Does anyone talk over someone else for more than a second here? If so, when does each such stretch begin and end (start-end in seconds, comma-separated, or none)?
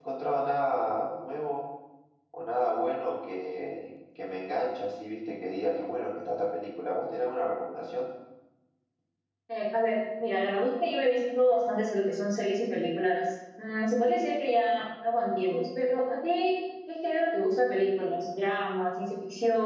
none